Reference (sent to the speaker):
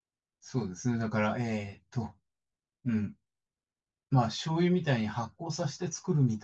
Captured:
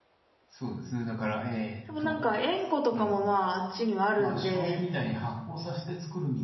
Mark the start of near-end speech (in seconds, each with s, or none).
1.8 s